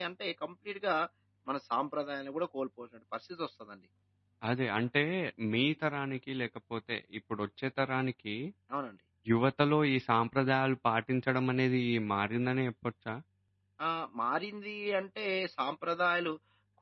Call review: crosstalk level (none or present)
none